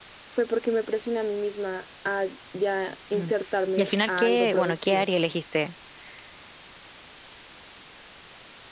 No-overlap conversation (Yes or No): No